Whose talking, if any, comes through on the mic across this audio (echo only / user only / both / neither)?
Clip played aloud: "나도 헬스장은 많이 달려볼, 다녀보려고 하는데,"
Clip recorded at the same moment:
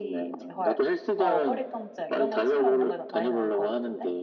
both